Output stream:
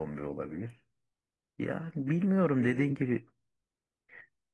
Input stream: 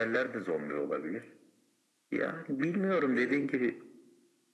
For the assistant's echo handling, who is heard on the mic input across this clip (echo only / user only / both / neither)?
echo only